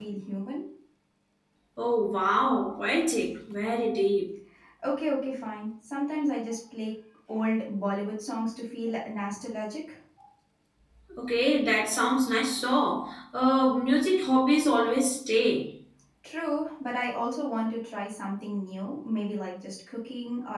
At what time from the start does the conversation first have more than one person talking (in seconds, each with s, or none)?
none